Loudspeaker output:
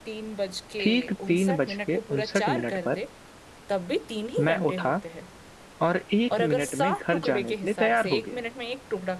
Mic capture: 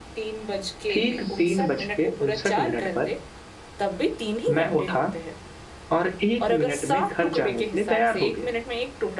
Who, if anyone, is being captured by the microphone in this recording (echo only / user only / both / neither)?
echo only